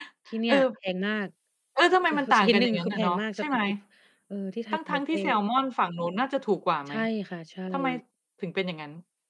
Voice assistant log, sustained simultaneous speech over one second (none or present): present